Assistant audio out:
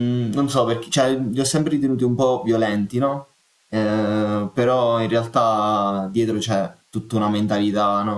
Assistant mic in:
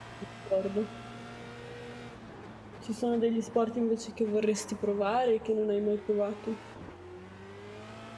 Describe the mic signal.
user only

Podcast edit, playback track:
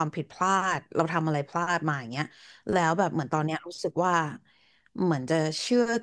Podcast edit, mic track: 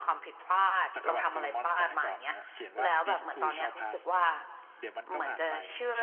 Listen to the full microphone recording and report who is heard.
both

